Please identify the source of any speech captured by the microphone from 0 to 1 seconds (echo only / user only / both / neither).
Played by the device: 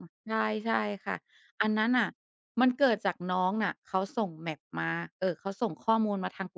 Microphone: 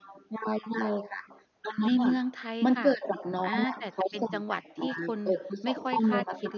echo only